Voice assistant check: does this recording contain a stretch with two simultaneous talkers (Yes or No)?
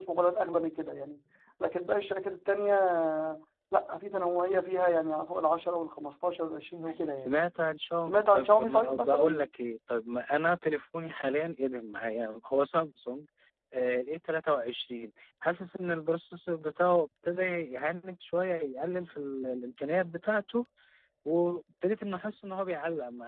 Yes